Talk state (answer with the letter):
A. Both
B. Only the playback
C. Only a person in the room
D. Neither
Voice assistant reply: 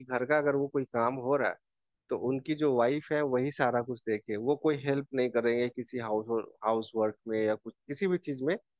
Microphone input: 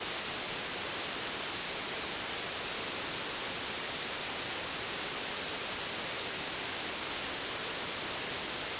D